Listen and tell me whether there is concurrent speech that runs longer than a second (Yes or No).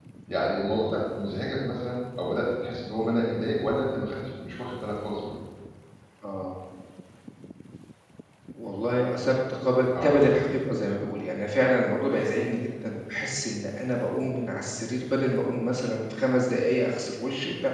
No